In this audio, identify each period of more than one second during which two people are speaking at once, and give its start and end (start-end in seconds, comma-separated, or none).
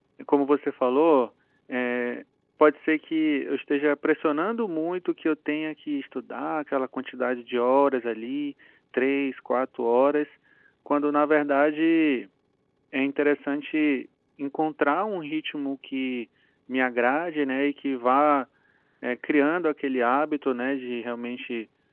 none